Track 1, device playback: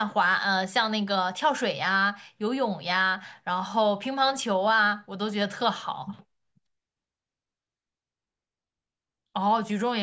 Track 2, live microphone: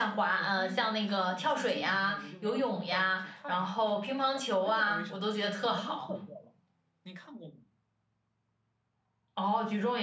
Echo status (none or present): present